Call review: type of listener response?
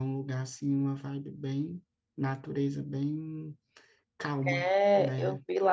taking over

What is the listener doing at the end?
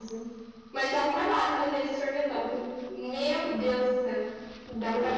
taking over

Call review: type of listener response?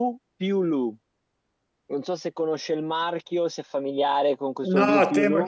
taking over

